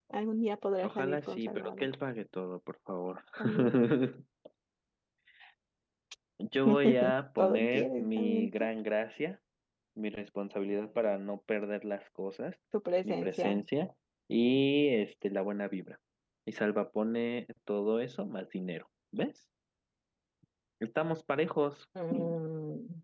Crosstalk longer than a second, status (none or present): present